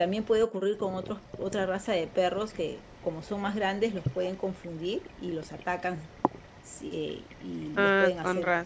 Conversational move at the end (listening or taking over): taking over